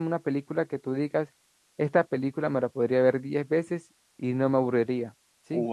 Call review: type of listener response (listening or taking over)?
taking over